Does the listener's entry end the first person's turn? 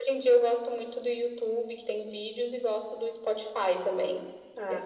Yes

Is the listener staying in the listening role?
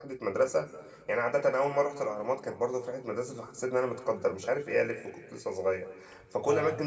Yes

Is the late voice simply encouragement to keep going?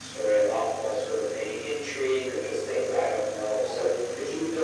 No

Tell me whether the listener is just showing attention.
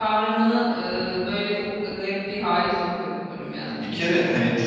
No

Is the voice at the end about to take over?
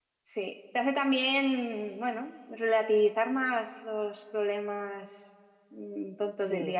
No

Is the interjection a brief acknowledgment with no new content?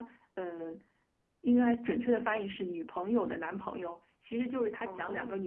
Yes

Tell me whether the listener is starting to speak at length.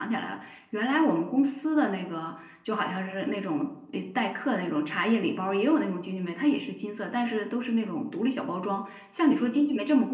No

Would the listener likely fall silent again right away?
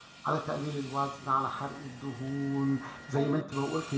Yes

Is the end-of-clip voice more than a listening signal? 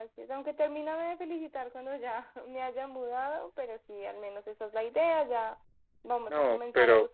No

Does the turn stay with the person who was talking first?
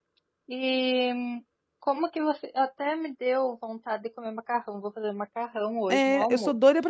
No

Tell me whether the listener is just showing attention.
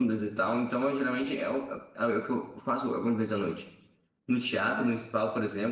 Yes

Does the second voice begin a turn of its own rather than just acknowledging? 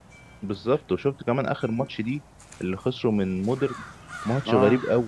No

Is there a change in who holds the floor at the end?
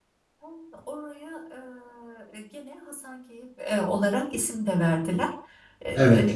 No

